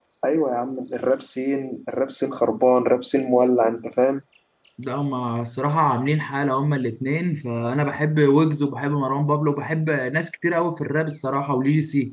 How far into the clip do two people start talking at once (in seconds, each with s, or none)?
none